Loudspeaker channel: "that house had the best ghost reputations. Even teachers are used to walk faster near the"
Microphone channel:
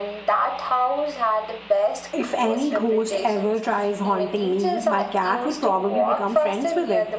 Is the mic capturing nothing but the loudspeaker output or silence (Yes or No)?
No